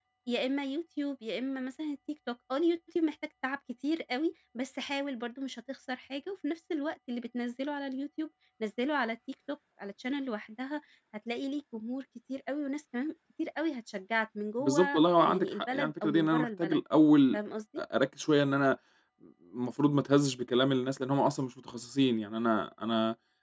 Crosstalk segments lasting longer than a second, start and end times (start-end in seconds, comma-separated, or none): 14.6-16.8